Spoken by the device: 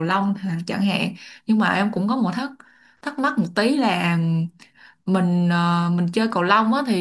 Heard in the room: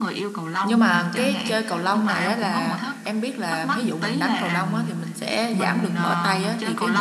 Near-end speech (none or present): present